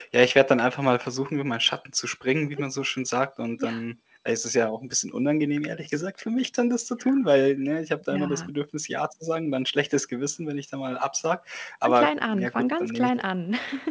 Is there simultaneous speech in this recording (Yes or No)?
Yes